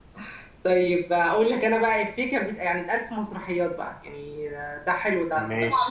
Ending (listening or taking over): listening